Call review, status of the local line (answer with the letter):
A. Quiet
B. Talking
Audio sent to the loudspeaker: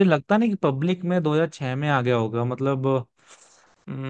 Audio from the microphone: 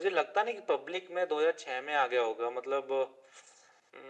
A